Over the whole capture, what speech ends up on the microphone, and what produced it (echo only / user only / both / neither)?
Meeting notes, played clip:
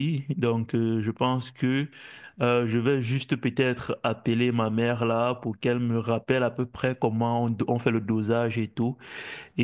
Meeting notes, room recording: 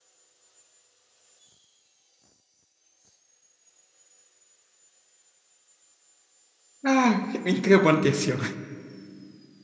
user only